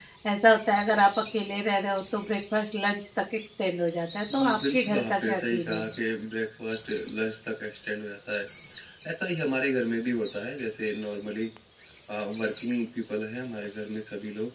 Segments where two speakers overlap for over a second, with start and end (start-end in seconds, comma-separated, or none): 4.4-5.8